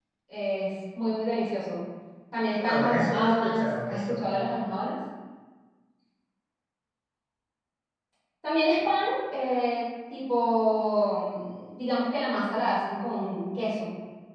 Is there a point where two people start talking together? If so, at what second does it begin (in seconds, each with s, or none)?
2.6 s